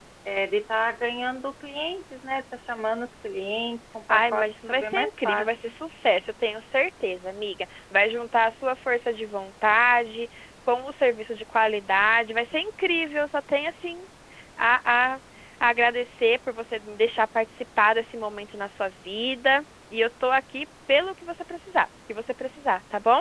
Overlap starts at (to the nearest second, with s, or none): 4 s